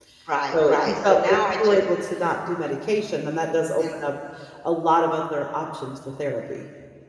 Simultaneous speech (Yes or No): Yes